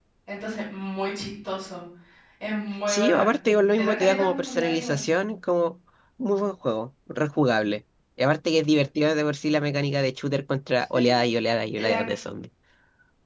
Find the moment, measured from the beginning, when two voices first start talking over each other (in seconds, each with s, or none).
2.9 s